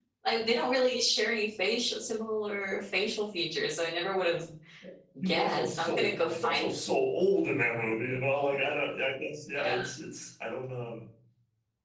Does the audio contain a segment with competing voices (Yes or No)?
Yes